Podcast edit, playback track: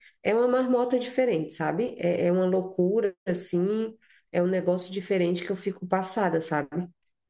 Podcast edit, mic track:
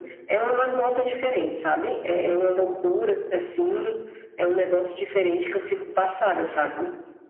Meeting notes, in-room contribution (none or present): none